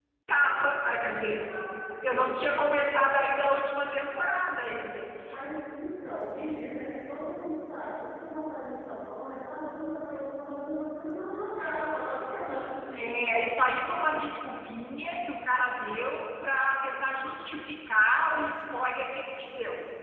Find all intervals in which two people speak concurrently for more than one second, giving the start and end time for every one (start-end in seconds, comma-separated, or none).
none